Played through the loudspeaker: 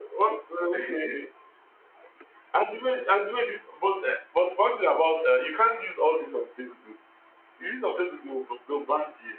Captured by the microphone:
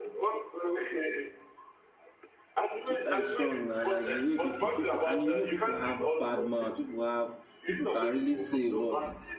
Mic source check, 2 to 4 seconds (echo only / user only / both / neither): both